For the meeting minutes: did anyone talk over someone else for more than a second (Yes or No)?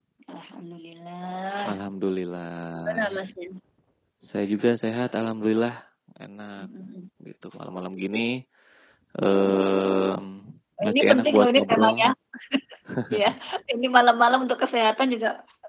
Yes